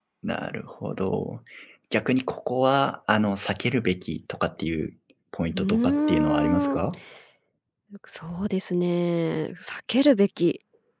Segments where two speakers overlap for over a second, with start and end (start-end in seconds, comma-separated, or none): 5.5-6.8